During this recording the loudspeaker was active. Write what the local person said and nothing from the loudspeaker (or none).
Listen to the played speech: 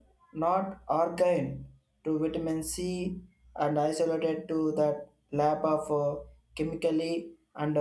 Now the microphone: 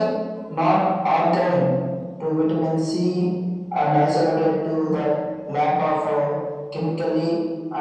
none